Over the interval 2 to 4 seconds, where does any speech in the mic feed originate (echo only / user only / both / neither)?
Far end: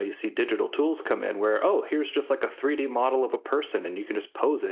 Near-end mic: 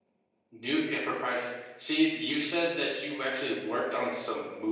user only